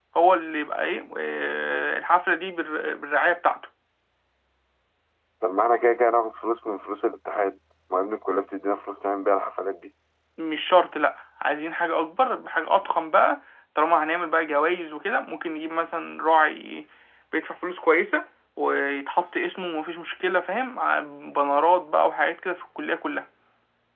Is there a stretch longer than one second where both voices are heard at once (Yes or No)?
No